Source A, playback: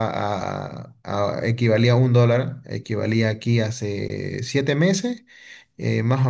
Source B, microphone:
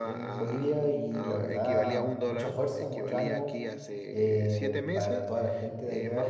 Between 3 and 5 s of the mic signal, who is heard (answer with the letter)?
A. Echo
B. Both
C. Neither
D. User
B